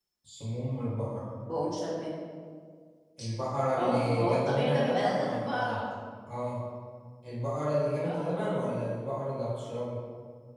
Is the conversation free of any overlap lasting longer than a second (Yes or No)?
No